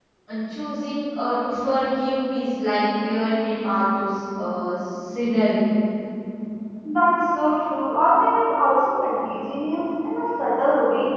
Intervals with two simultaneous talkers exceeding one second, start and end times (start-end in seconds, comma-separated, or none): none